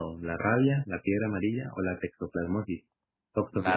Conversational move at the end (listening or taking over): taking over